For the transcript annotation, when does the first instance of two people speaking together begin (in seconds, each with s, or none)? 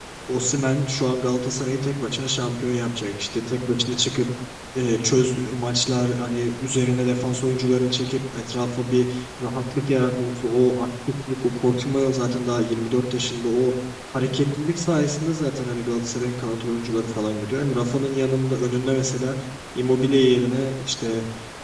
none